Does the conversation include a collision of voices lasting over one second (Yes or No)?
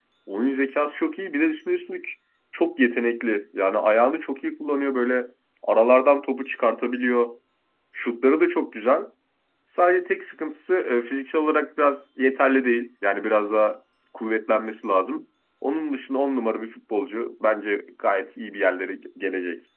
No